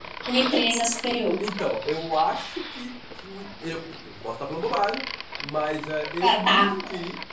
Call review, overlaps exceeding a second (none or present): none